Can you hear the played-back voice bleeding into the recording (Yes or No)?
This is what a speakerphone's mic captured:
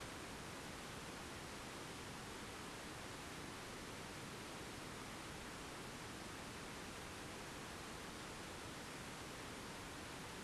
No